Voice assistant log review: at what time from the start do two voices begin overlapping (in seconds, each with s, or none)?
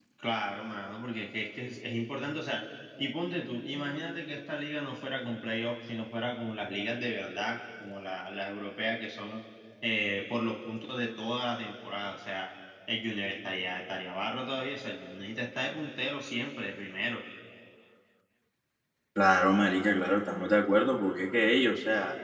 none